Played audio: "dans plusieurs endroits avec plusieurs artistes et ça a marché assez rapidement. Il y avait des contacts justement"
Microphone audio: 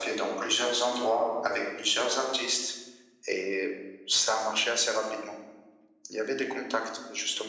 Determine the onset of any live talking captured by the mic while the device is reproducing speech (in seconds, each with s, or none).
none